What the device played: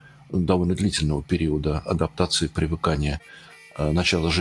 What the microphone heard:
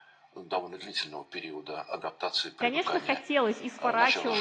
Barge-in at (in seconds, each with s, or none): 2.6 s